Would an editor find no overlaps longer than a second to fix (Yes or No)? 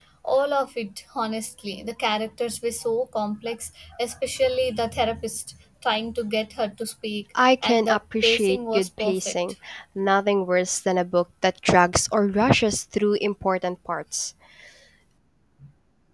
No